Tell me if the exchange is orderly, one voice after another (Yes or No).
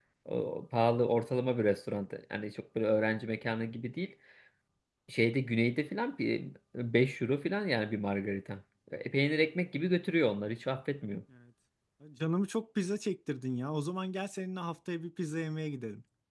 Yes